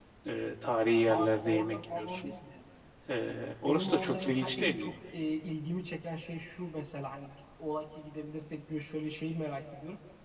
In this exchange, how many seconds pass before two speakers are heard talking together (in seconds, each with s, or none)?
1.1 s